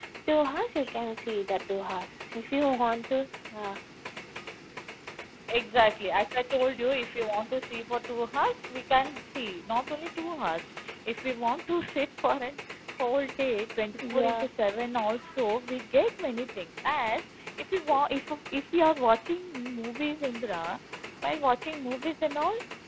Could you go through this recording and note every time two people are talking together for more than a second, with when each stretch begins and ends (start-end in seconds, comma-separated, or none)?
none